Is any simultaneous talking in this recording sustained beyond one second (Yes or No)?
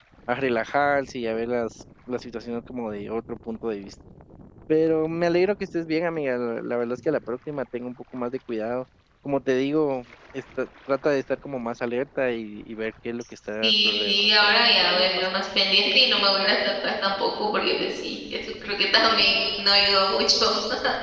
Yes